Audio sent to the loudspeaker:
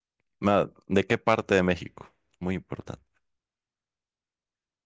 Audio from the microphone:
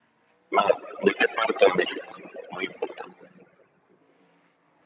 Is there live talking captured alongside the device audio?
No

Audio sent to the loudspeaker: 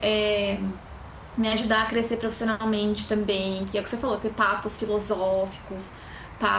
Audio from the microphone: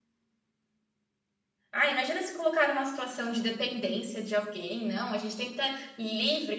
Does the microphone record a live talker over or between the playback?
Yes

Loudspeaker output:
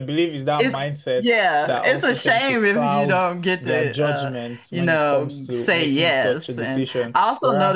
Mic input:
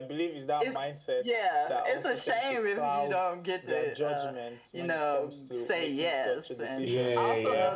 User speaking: Yes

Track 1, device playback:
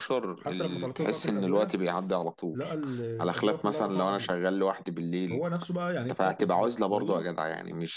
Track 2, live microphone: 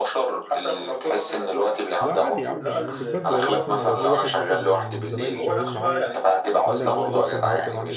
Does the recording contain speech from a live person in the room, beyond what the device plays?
Yes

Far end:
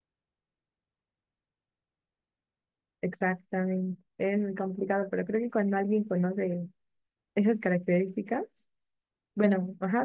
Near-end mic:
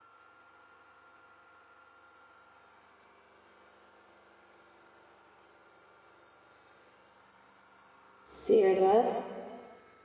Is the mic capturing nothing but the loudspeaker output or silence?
No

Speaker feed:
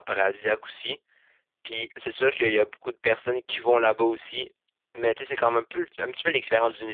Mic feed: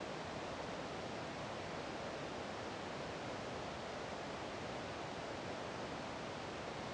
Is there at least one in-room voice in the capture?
No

